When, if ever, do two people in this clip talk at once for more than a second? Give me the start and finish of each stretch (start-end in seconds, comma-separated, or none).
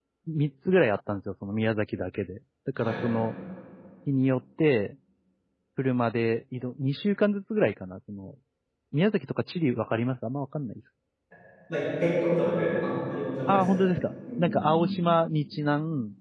none